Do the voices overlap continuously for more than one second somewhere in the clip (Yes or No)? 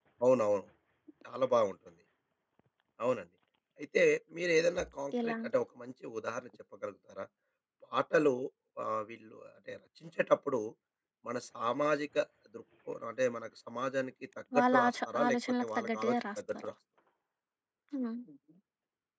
Yes